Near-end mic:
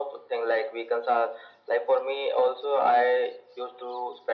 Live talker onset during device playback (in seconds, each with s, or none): none